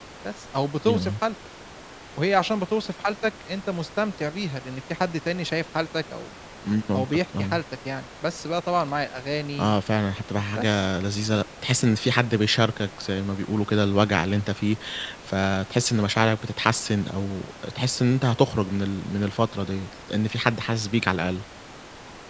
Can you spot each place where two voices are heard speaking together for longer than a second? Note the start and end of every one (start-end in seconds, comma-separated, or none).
none